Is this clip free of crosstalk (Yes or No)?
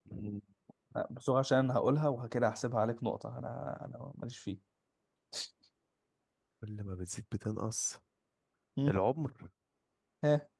Yes